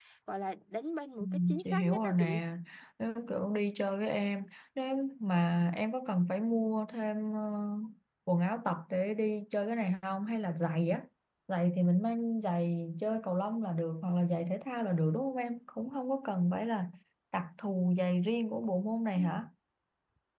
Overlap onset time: 1 s

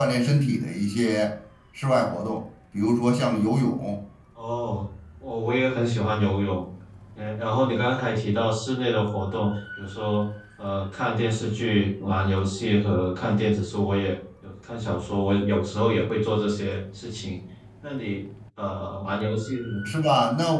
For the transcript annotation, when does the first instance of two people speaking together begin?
none

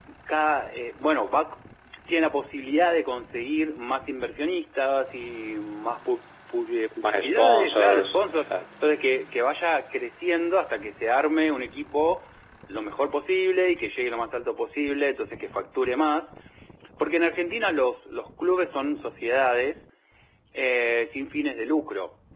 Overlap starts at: 7 s

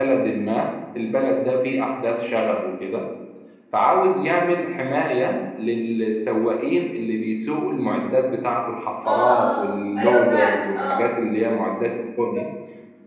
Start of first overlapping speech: 9 s

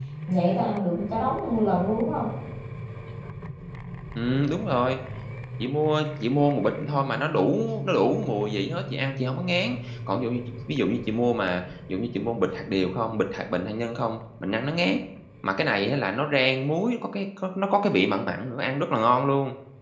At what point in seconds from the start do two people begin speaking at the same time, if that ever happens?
none

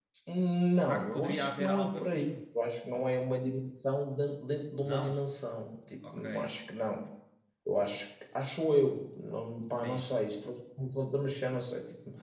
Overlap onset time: 1 s

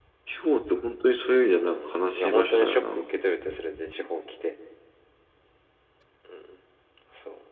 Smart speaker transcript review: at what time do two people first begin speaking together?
2 s

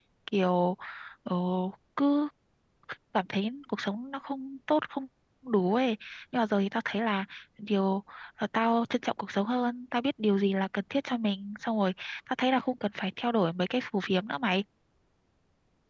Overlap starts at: none

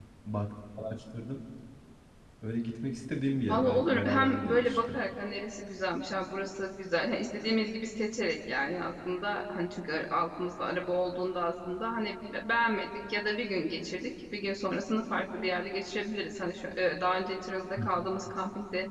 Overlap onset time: 3 s

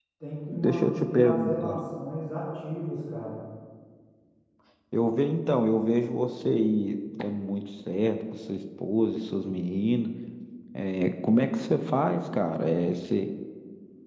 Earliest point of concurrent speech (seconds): 1 s

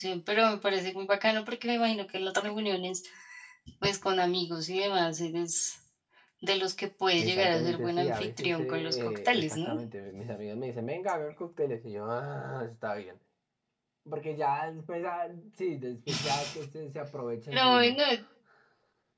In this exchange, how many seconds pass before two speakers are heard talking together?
7 s

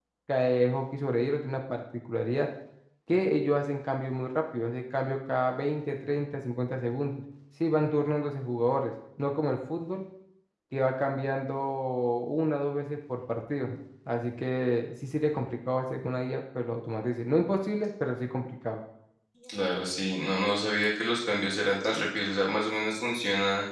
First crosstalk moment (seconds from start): none

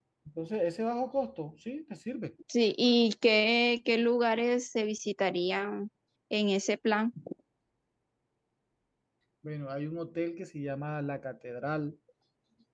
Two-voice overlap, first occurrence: none

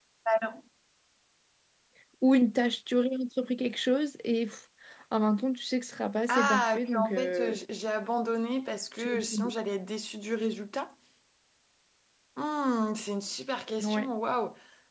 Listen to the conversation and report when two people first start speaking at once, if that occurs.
6 s

